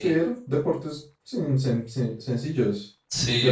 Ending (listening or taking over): taking over